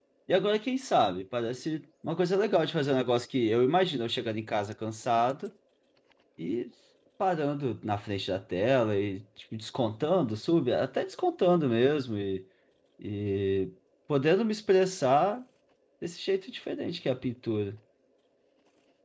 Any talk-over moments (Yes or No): No